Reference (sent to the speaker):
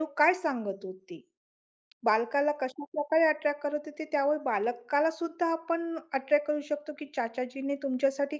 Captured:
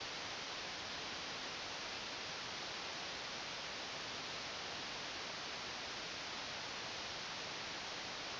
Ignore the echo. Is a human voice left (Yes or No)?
No